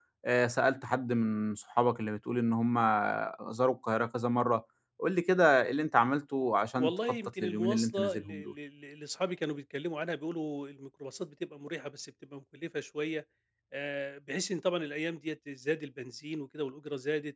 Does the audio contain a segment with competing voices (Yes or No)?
Yes